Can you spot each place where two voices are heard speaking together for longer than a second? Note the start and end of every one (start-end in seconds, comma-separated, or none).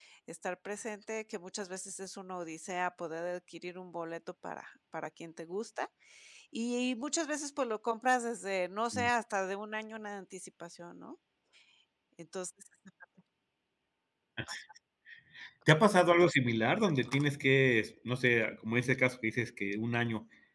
none